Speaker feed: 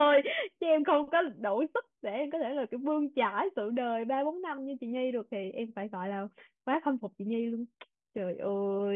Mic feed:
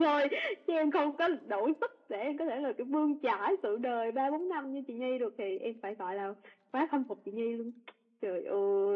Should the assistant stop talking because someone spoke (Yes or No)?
No